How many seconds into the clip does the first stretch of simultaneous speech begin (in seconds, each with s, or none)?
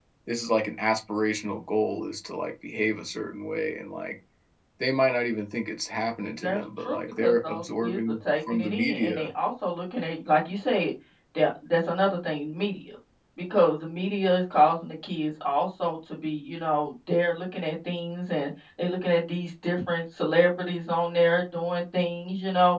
6.4 s